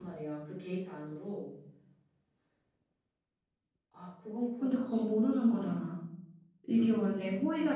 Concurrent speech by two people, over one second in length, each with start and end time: none

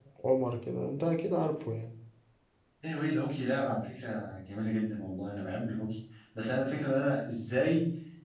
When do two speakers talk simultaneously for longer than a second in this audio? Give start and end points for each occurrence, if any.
none

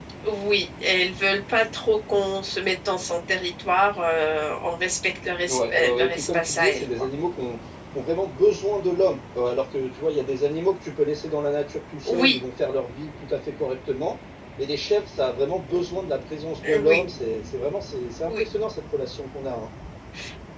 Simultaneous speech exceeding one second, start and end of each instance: 5.5-7.1

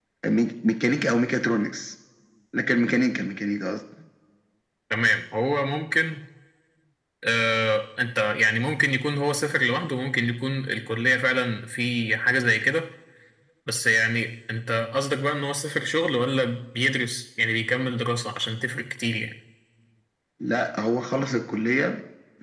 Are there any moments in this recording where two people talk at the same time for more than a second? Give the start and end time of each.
none

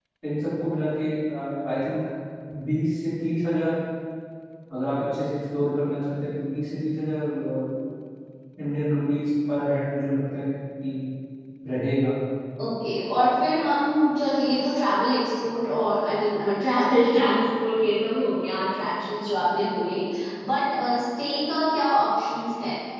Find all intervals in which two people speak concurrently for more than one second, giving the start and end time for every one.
none

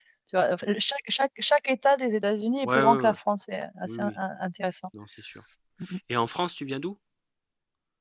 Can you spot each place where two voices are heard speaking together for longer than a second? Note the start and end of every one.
none

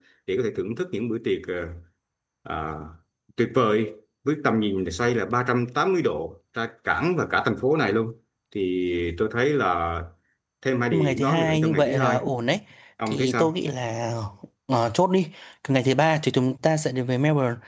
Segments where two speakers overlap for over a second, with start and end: 10.9-12.2

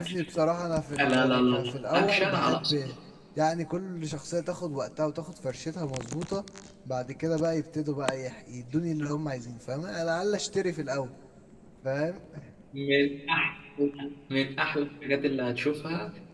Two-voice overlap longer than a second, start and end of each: 1.0-2.8

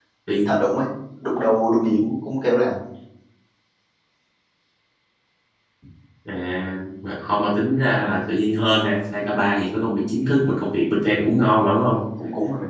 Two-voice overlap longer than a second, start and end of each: none

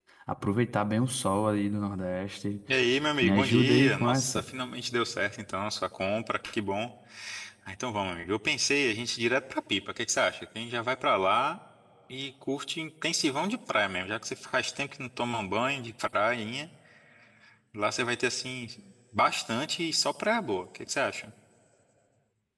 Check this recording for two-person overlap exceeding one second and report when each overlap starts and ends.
3.2-4.4

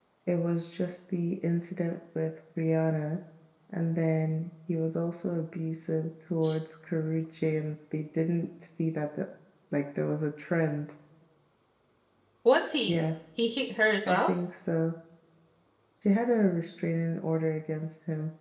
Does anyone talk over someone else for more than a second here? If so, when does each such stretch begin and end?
none

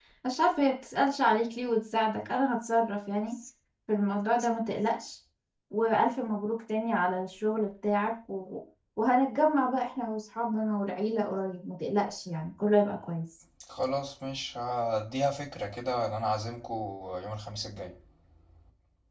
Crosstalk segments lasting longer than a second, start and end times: none

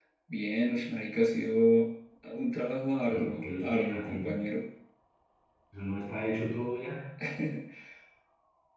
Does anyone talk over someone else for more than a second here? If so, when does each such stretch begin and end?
3.1-4.3

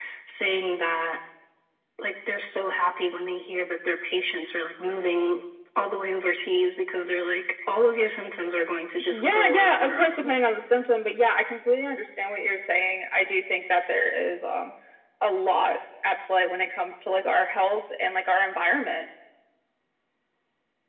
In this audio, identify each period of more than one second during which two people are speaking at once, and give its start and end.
9.1-10.3

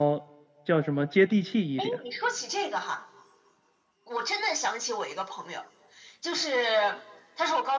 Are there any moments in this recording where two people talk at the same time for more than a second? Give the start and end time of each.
none

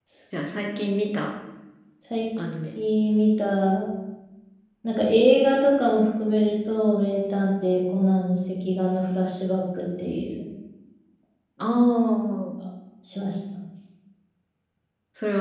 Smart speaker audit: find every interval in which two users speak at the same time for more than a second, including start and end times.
none

